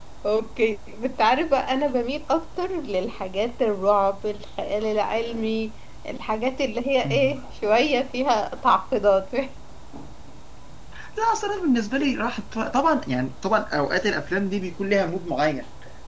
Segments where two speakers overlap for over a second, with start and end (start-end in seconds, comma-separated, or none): none